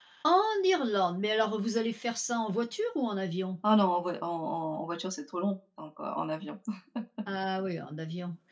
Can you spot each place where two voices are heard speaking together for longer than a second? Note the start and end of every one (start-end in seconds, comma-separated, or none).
none